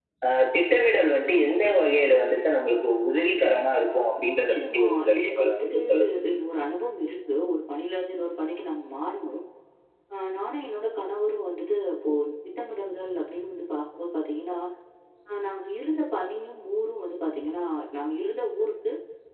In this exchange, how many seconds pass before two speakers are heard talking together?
4.4 s

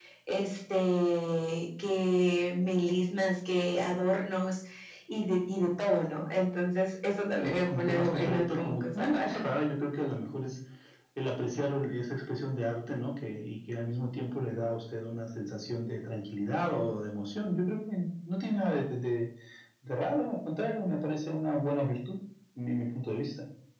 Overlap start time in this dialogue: 7.4 s

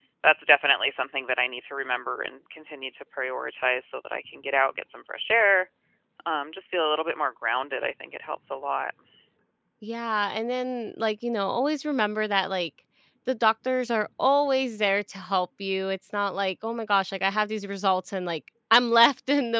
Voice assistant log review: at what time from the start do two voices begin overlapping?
none

